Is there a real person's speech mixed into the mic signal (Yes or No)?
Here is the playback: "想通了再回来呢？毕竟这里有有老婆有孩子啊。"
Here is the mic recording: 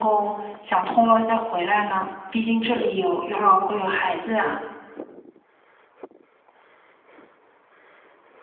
No